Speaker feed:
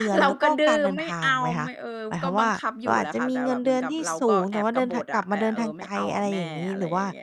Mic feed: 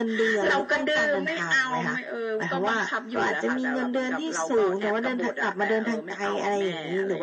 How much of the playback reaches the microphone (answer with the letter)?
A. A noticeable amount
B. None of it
A